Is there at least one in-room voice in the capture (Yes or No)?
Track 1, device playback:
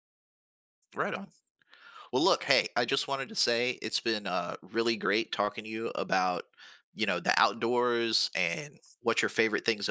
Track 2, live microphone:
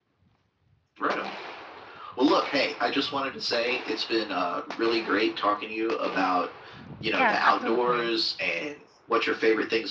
Yes